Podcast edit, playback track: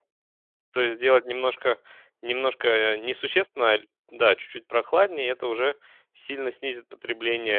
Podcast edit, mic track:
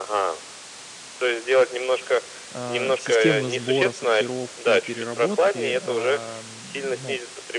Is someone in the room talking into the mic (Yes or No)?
Yes